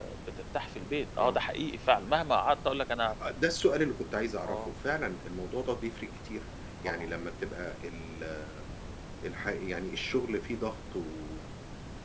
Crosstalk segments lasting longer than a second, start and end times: none

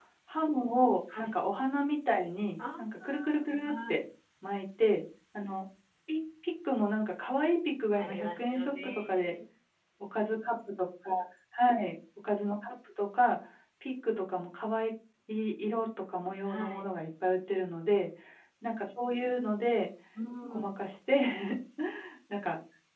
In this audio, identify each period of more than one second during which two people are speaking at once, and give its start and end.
8.0-9.3

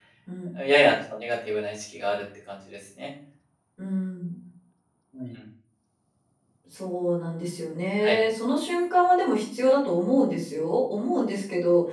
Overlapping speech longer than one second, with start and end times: none

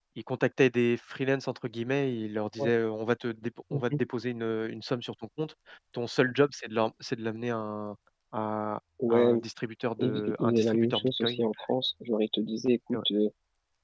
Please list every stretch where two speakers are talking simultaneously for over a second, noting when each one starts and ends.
10.0-11.4

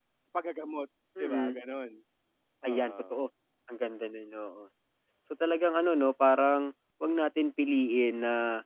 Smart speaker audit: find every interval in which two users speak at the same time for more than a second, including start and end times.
none

